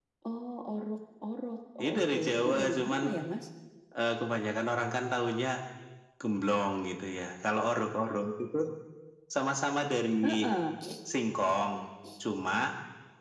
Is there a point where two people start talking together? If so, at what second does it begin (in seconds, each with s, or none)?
1.8 s